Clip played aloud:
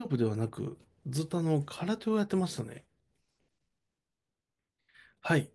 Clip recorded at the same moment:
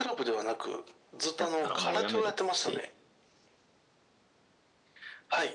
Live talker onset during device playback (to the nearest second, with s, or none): 1 s